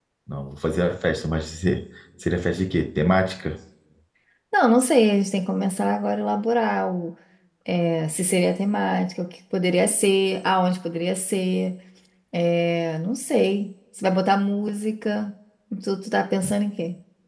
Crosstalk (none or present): none